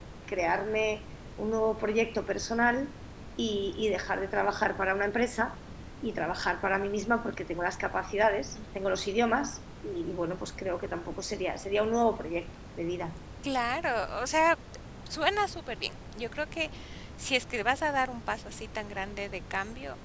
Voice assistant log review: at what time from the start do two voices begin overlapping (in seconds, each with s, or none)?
none